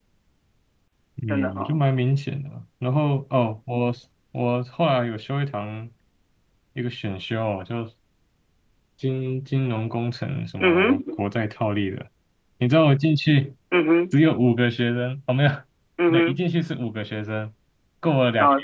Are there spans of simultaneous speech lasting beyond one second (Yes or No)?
No